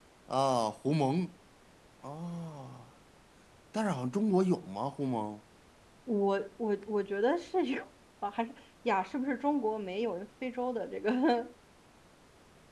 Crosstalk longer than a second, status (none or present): none